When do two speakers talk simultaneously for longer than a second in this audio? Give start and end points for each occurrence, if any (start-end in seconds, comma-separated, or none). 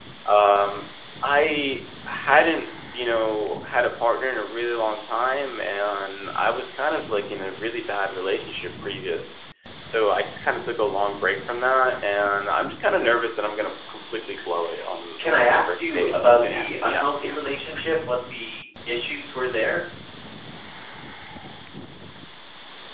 15.3-17.3